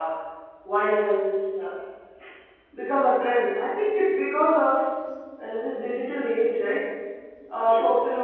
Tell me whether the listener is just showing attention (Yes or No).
Yes